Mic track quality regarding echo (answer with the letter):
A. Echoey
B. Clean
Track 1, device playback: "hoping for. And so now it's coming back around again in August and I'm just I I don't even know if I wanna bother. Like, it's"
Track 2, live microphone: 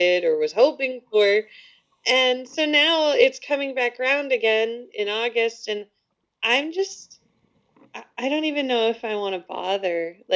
A